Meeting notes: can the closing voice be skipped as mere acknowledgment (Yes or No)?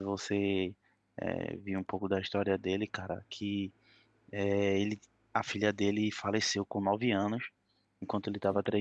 Yes